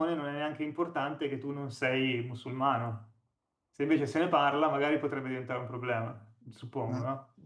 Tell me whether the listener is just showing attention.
No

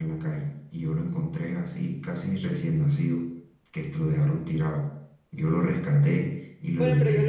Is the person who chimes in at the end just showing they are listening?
No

